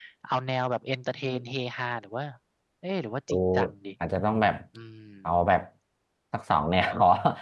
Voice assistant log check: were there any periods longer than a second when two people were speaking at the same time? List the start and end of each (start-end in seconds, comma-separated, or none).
none